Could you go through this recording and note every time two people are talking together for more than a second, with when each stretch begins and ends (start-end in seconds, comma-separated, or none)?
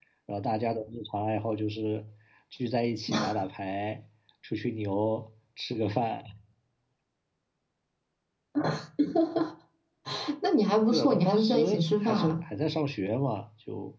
10.9-12.3